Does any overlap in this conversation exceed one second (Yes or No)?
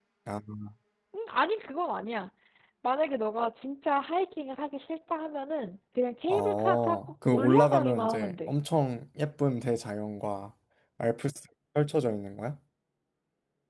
Yes